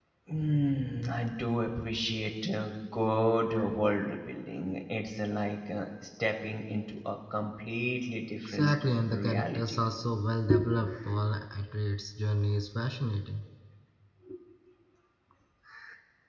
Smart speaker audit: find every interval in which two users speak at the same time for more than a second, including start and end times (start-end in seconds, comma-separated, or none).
8.4-9.8